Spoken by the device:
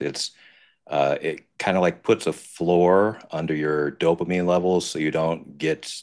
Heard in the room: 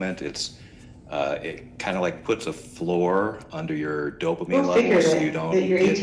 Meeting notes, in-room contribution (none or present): present